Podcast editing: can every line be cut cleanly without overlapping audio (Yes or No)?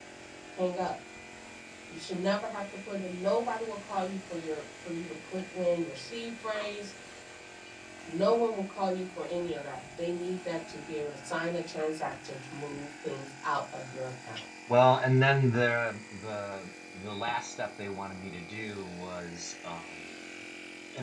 Yes